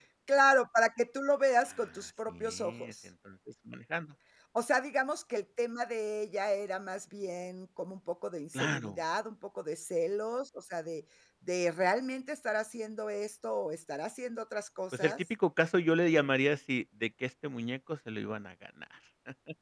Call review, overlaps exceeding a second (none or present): present